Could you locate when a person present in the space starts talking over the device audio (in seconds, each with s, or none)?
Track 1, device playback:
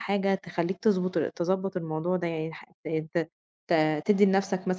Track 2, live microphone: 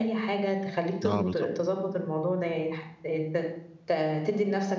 1.0 s